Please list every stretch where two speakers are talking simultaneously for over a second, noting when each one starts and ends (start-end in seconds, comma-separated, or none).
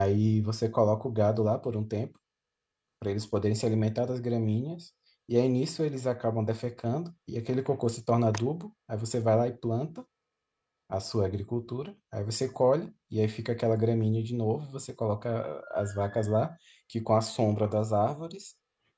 none